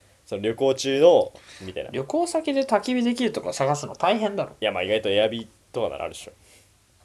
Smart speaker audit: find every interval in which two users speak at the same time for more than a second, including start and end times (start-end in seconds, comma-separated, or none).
none